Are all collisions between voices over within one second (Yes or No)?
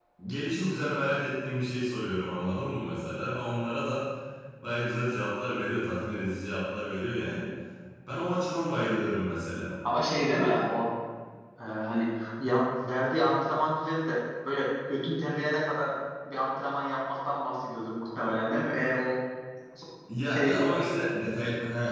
Yes